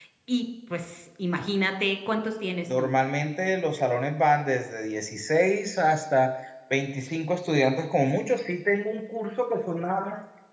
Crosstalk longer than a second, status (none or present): none